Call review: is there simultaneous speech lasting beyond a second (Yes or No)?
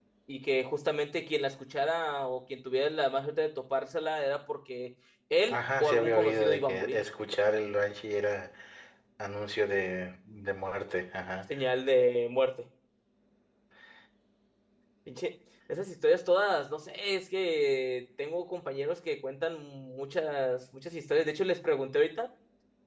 Yes